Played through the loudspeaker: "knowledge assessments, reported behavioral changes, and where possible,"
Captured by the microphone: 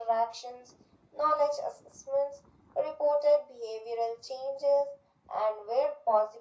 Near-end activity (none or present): none